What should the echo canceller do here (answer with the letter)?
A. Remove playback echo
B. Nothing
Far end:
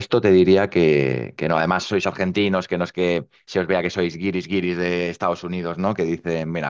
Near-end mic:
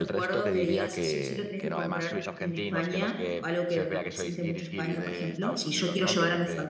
A